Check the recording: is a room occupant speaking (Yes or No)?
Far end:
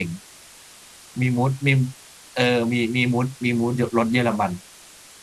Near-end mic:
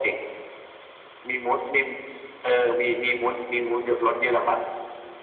No